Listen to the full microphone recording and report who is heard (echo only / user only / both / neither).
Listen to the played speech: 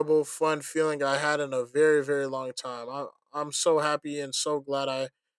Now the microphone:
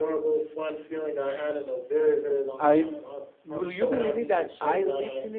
both